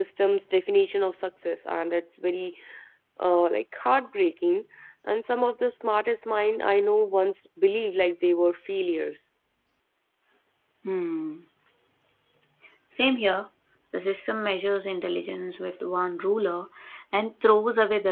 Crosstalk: none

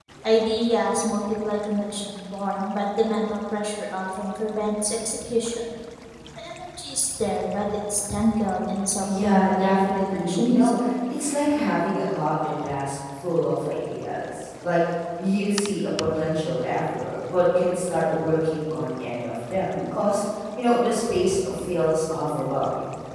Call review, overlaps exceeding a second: present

